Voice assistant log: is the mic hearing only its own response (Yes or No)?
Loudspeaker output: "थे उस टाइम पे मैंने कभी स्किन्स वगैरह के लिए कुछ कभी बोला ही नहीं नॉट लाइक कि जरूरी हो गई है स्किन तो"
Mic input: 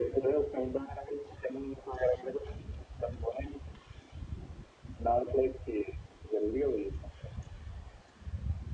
Yes